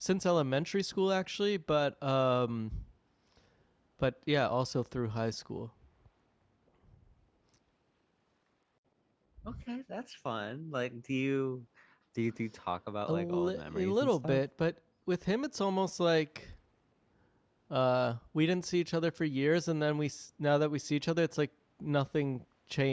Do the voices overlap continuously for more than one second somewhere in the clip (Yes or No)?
Yes